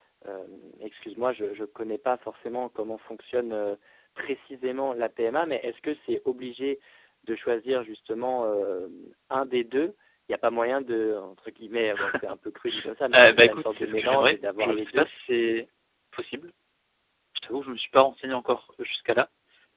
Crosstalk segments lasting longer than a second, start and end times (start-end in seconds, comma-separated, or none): 13.1-15.1